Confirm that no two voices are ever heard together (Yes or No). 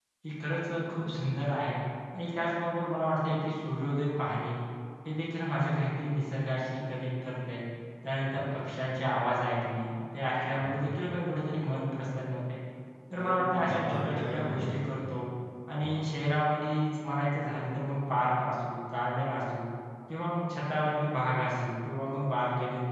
No